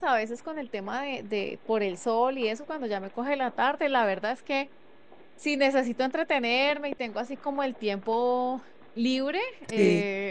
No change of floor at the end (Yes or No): Yes